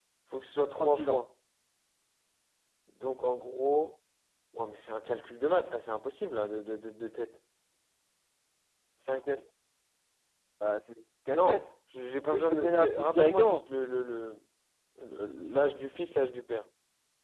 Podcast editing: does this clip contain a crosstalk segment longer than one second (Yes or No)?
Yes